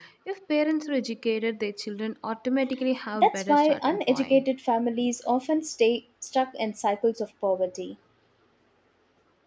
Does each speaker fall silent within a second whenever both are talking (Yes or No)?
No